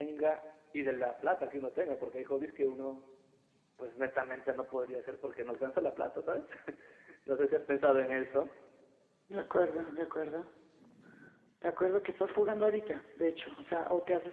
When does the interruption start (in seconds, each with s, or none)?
none